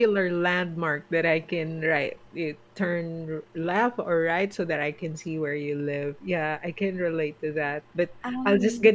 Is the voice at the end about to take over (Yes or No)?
No